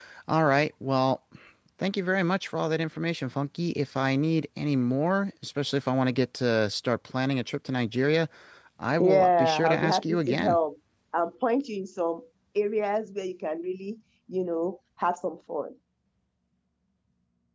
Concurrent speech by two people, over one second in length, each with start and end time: 9.0-10.6

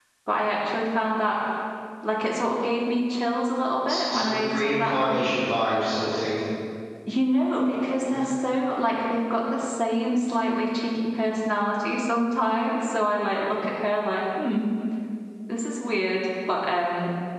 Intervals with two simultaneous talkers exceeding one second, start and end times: 3.9-5.3

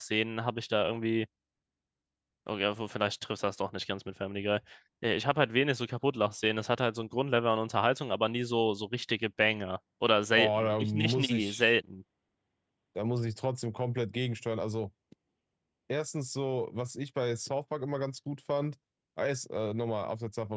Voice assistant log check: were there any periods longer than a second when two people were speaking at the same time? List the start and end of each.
10.3-11.7

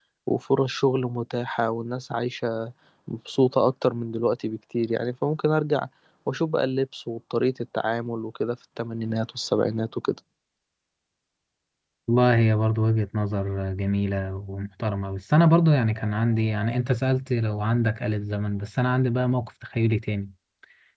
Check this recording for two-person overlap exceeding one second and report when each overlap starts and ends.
none

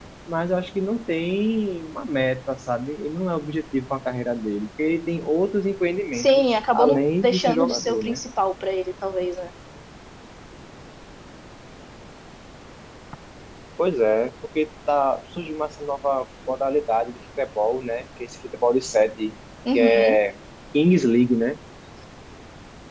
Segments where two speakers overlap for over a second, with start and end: 6.1-8.2

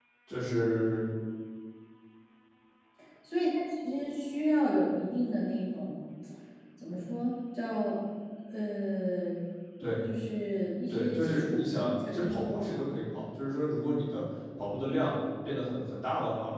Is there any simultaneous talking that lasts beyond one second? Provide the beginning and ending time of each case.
10.9-12.9

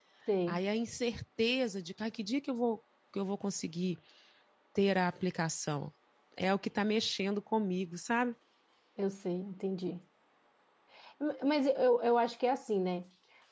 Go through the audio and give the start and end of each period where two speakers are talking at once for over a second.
none

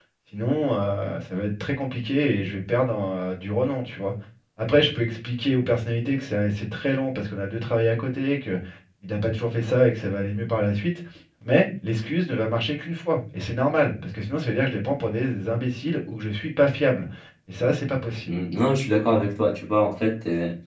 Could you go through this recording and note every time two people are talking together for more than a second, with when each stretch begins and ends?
none

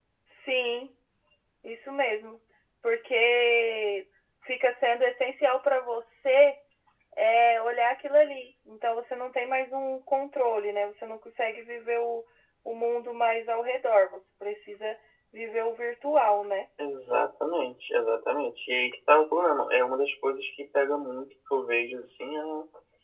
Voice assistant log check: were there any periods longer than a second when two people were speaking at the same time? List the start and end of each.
none

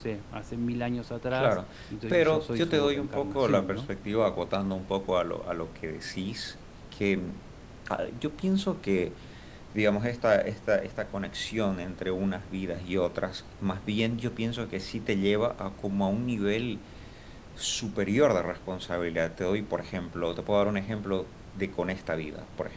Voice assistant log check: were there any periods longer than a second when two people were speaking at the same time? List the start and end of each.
2.1-3.8

